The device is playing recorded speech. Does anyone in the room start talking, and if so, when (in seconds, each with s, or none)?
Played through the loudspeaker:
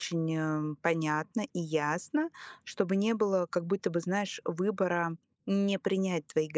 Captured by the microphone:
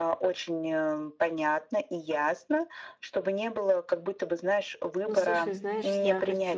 5.0 s